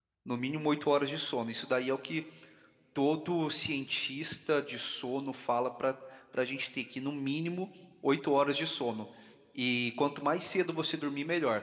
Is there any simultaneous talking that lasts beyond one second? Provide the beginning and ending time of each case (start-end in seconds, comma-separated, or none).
none